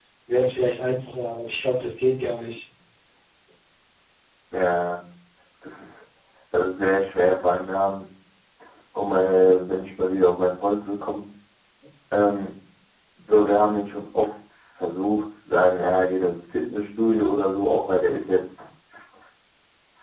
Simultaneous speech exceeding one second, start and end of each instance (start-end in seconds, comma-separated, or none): none